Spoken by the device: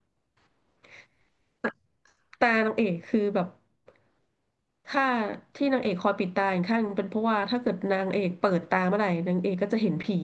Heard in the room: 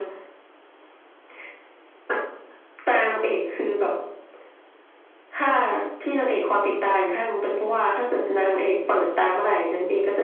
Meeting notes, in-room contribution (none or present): none